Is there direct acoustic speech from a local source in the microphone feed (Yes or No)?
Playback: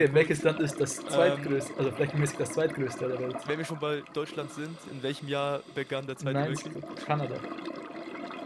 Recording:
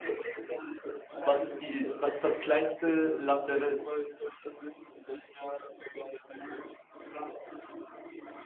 Yes